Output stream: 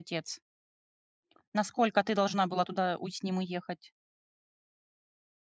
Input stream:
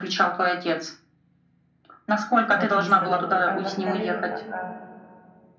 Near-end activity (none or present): present